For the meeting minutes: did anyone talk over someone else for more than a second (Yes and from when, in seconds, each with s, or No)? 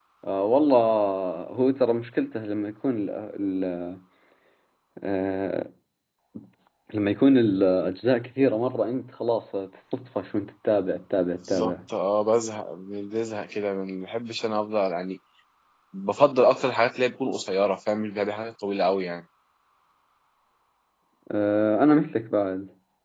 No